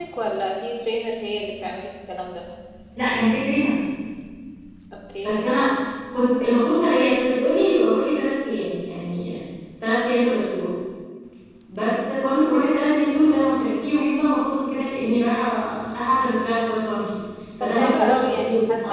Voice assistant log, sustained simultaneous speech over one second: present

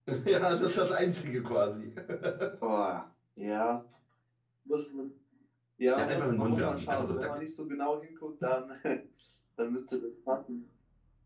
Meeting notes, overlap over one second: present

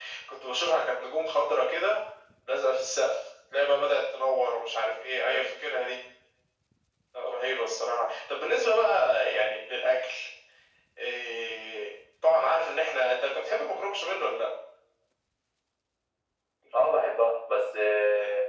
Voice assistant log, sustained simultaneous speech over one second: none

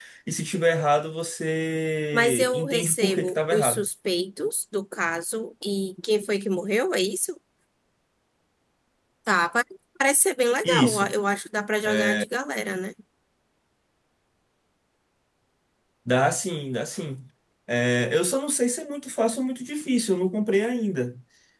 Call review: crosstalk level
present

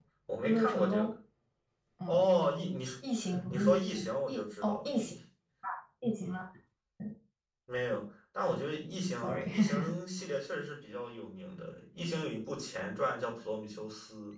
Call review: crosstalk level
present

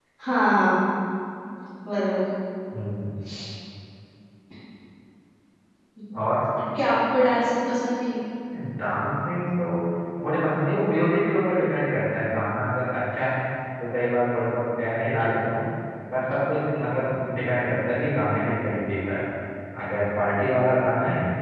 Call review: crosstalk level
none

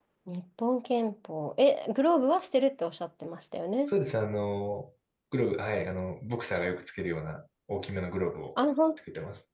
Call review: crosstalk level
none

